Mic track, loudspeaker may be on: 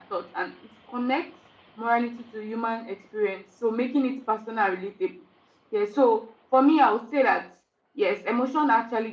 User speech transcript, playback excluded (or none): none